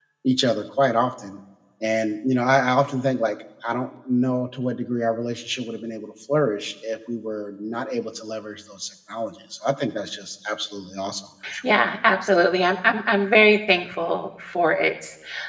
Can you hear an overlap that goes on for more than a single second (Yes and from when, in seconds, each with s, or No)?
No